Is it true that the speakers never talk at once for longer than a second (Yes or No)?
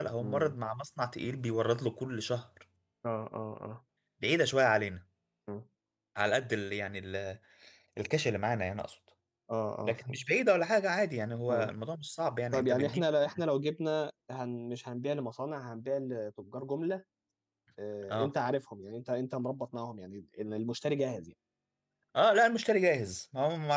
Yes